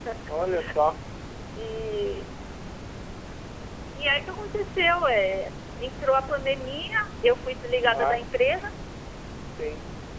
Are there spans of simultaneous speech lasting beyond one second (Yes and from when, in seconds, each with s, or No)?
No